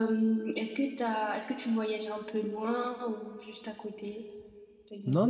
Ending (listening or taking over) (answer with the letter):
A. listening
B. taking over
B